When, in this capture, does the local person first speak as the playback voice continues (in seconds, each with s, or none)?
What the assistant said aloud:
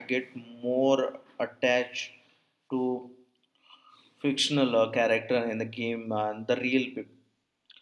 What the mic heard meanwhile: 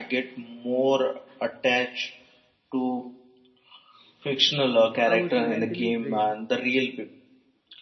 5.0 s